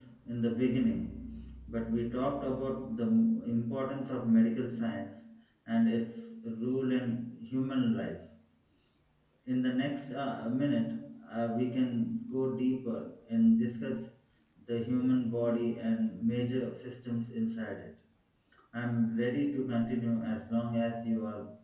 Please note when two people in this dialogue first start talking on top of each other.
none

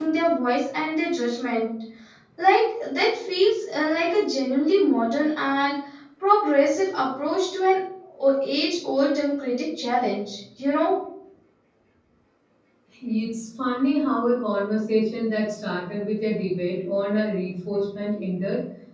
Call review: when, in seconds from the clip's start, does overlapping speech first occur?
none

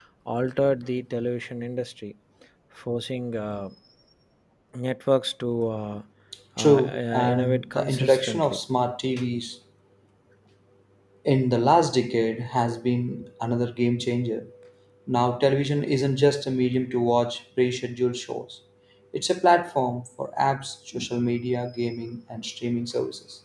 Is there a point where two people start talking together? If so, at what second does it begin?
6.6 s

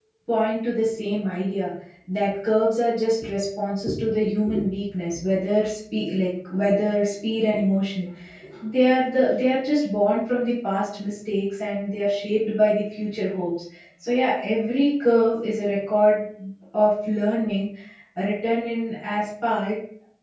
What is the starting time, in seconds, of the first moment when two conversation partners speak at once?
none

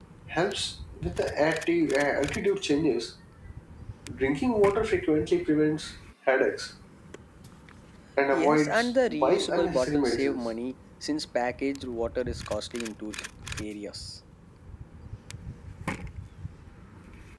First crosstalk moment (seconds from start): 8.3 s

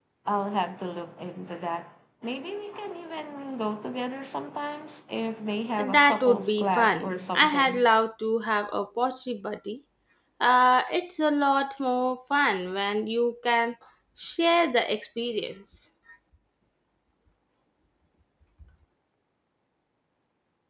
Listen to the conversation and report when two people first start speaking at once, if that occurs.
5.8 s

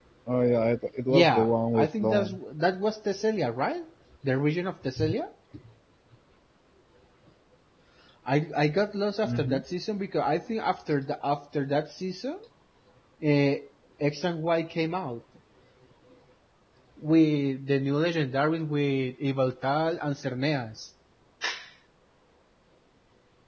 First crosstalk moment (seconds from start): 1.1 s

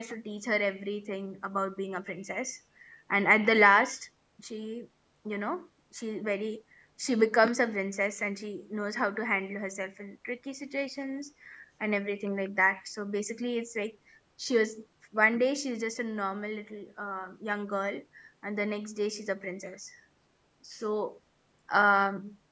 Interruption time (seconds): none

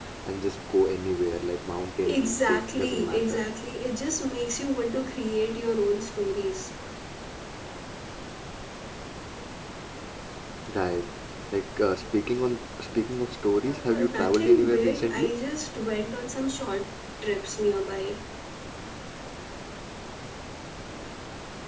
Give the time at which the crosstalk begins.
2.0 s

